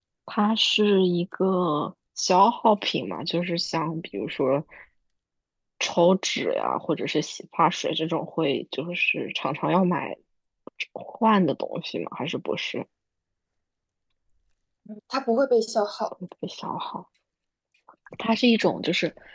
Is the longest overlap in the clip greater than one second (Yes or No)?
No